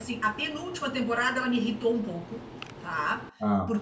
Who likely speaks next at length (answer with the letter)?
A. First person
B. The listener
A